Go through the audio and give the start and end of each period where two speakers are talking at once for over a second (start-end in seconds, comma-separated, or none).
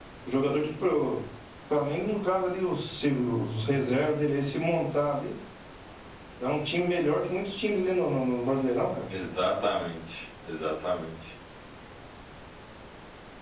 none